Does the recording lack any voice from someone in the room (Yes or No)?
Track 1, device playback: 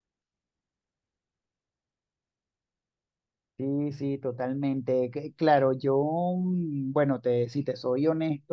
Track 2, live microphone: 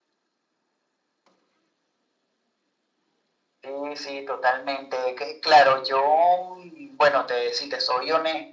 Yes